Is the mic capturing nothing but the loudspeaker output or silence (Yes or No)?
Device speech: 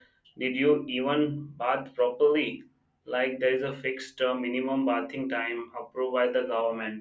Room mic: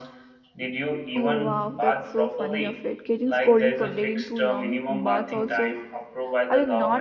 No